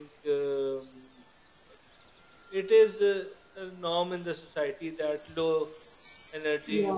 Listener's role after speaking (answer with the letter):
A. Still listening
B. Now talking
A